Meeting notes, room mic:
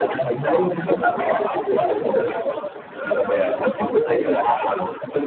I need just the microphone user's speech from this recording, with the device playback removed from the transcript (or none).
yeah